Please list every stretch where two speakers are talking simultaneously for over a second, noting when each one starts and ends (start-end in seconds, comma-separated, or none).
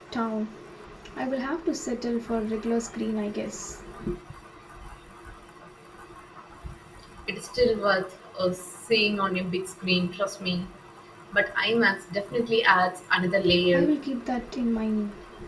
none